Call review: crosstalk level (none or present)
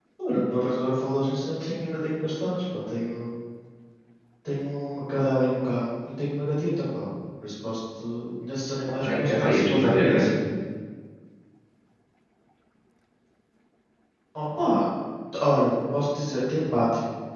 present